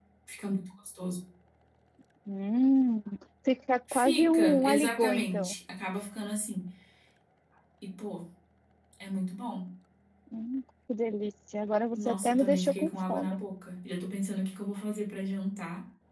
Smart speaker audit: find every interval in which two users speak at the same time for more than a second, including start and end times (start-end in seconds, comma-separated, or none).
3.9-5.5, 11.9-13.4